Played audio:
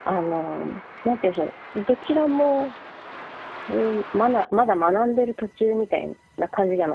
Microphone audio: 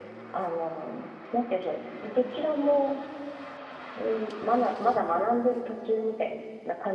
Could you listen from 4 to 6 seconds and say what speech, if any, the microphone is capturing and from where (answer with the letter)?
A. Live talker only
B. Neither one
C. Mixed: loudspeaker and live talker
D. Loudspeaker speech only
D